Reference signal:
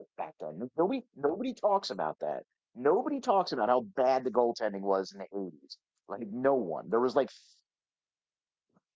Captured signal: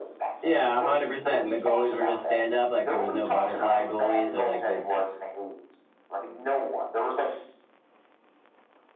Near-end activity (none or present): present